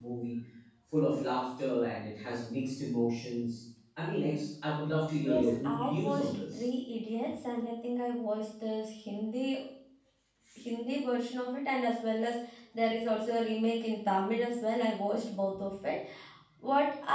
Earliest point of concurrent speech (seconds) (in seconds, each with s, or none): 5.2 s